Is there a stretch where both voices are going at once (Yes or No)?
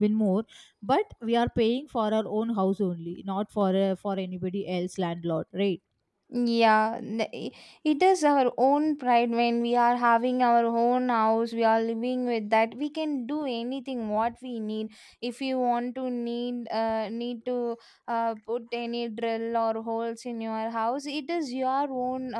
No